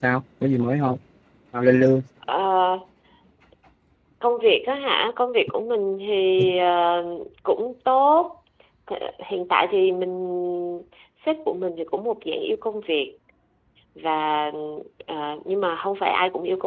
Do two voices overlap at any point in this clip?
No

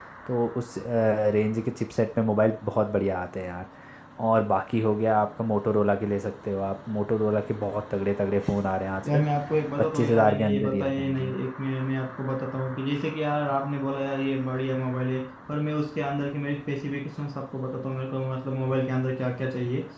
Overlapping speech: Yes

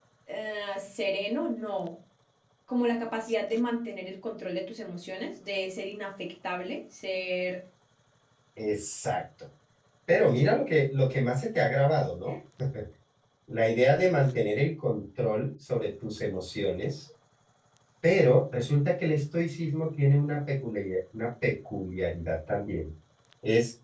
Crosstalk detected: No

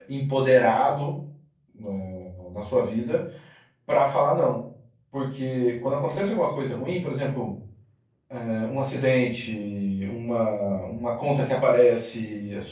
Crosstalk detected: No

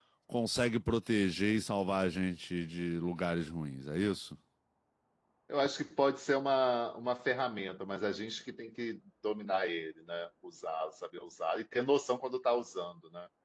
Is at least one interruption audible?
No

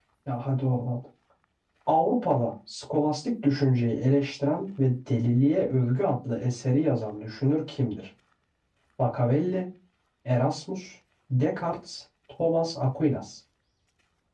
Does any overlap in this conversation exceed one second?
No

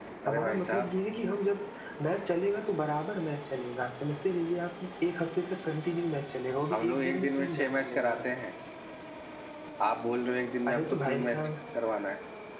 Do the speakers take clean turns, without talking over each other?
No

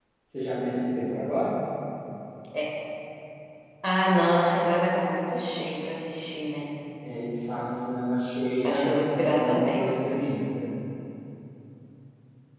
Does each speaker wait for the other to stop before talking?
No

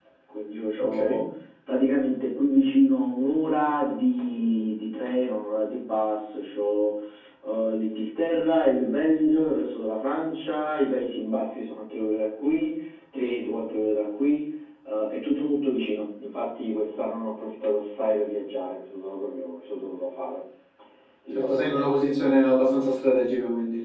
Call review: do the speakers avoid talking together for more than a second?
Yes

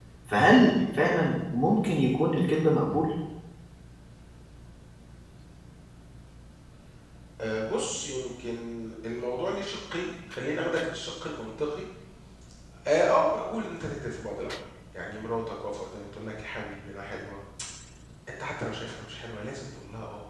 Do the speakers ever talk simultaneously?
No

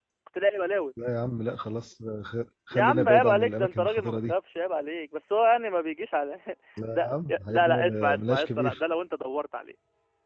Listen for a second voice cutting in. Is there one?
Yes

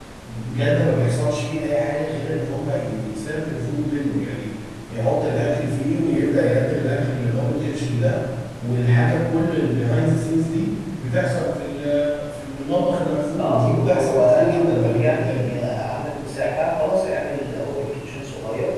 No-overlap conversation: No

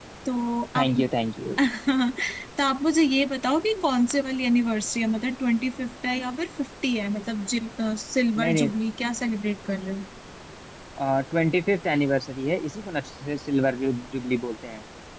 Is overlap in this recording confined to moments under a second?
Yes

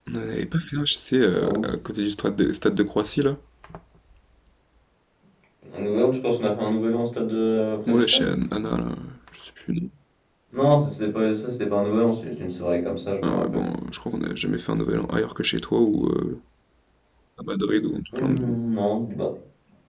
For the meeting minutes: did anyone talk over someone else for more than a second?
No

